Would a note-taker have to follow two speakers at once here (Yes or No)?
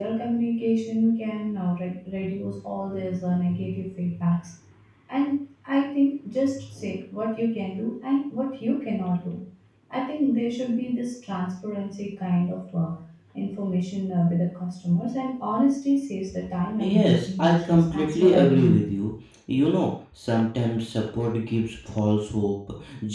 Yes